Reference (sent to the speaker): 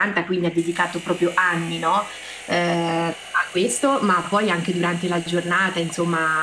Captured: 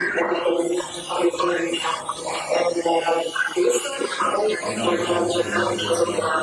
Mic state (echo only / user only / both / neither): both